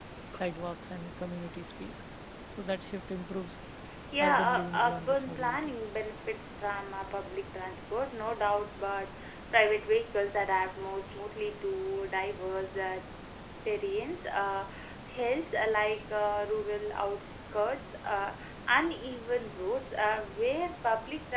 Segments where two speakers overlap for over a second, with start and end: 4.2-5.7

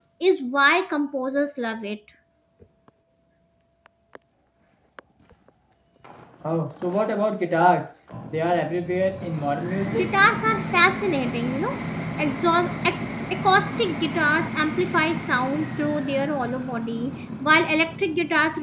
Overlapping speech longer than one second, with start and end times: none

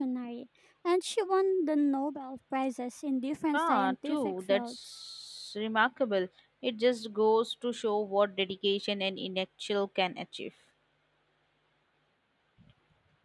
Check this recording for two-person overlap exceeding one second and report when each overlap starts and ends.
3.5-4.9

